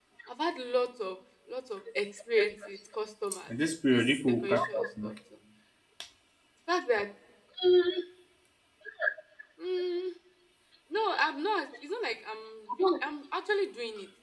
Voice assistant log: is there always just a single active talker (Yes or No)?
No